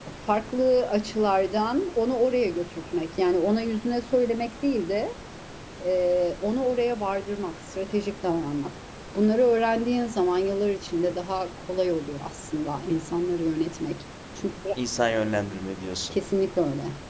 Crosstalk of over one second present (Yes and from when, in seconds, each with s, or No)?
No